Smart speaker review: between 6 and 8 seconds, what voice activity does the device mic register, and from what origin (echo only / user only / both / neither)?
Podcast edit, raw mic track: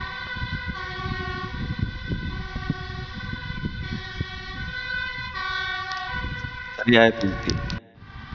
user only